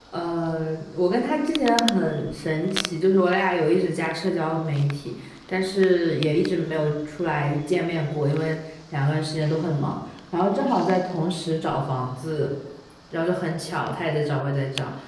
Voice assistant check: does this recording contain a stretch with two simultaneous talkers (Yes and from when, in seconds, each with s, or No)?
No